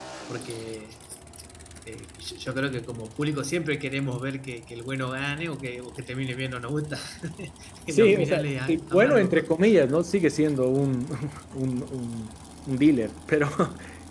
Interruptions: present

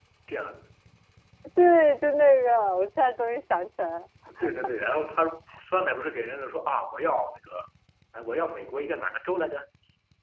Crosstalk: none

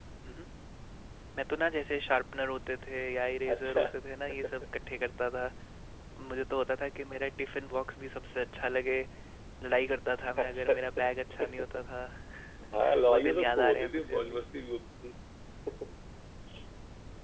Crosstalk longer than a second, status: present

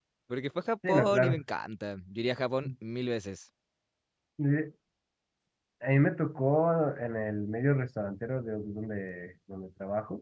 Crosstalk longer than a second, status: none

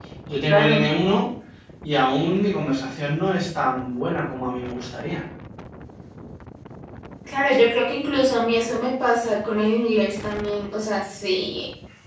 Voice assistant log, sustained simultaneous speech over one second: none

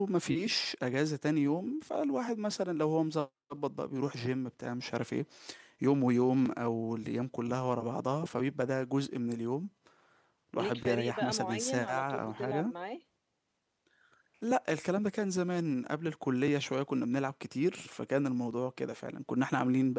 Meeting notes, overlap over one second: present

